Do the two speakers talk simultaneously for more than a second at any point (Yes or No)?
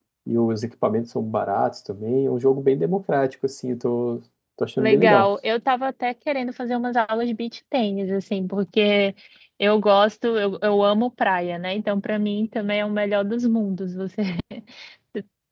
No